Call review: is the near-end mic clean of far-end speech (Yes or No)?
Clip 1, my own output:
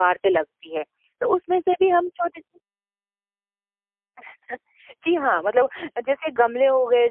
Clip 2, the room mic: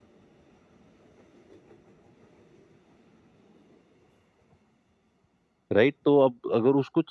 Yes